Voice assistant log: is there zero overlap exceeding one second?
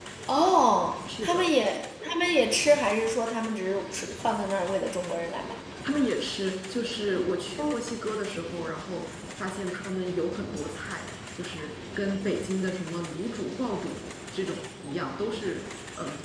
Yes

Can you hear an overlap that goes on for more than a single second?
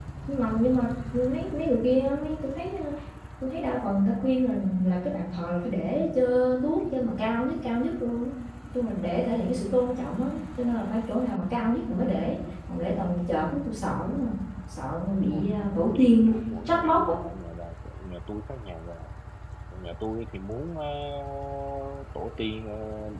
Yes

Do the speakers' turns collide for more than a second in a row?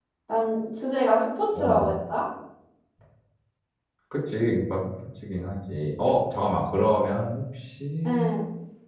No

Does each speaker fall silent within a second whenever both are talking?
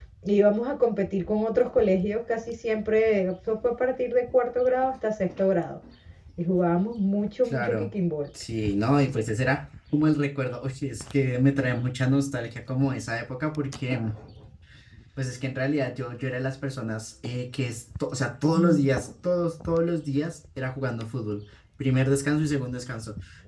Yes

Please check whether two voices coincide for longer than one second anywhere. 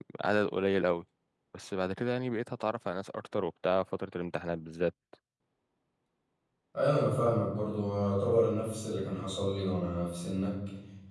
No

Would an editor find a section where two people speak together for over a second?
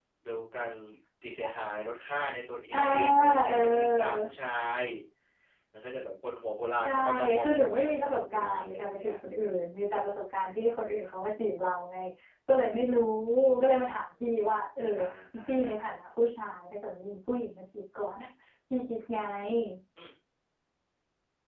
Yes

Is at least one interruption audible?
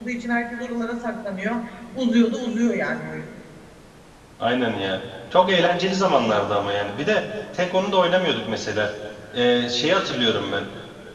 No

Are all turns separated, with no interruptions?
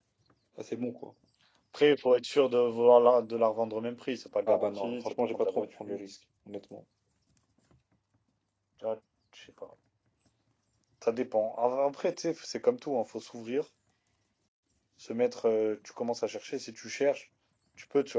No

